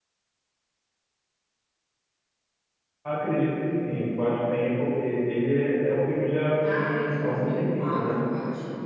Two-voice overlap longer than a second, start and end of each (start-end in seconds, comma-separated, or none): 6.5-8.2